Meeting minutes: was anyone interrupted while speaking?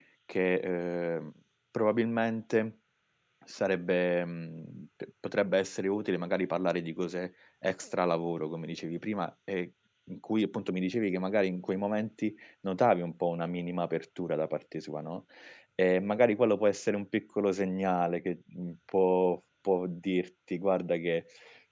No

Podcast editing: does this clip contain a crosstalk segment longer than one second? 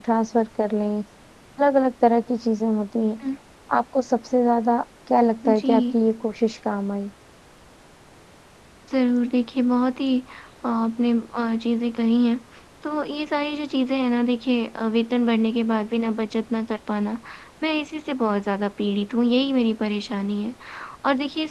No

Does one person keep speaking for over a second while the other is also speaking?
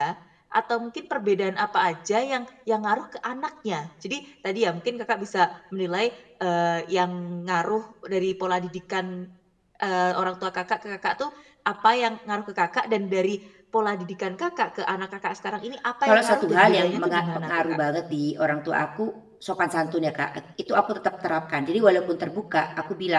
Yes, from 16.0 s

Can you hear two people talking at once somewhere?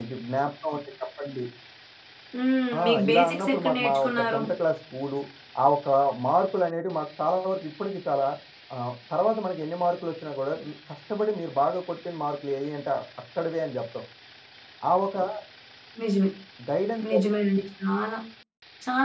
Yes, from 2.8 s

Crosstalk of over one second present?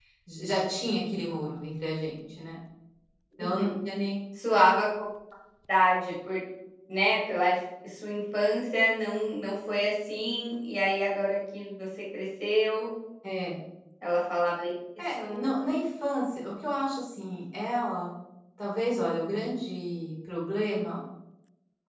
No

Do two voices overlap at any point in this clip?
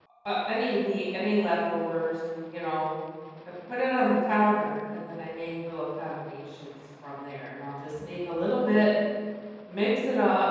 No

